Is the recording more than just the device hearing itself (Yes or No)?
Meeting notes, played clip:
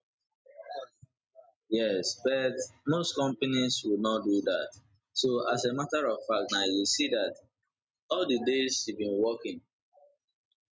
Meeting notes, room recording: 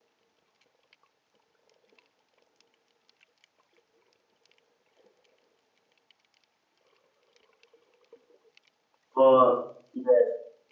Yes